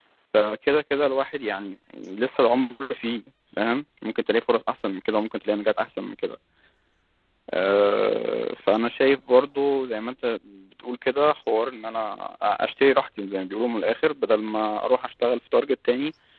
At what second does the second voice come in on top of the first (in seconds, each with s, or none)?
none